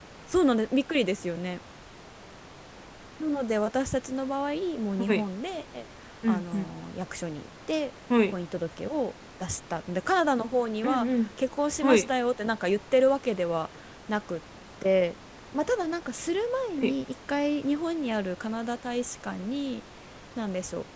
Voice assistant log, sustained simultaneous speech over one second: none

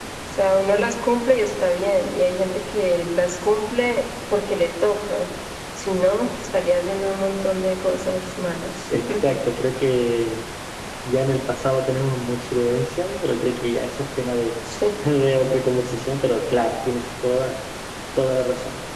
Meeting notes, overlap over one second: none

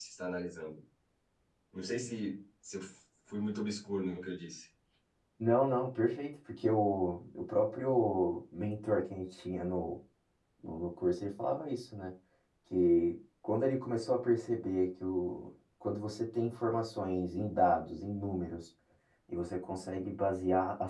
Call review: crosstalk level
none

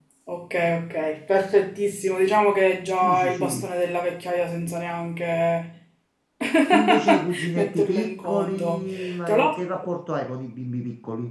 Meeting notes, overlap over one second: present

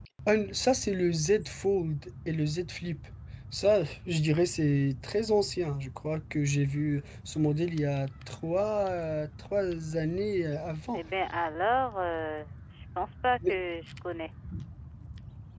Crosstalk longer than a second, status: none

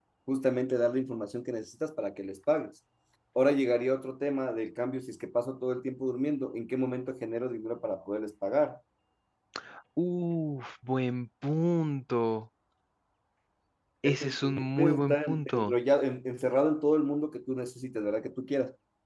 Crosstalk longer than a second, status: present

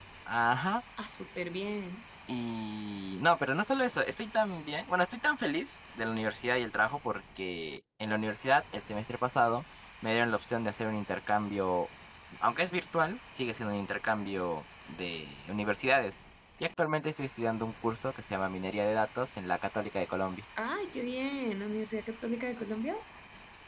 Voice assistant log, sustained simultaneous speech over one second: none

